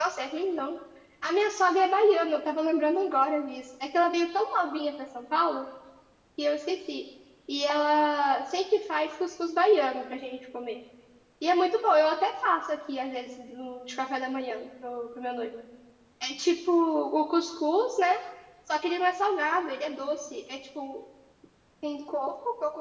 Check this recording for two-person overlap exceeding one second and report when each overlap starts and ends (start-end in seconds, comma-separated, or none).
none